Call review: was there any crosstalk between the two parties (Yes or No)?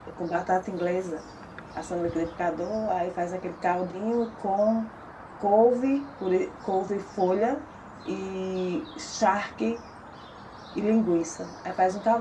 No